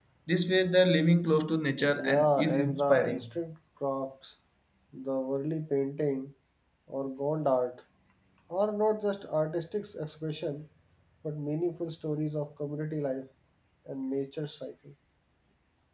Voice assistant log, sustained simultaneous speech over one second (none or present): present